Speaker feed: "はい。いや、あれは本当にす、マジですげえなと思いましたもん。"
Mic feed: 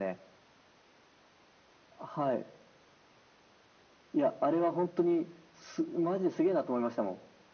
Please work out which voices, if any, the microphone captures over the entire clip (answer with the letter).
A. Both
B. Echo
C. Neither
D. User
B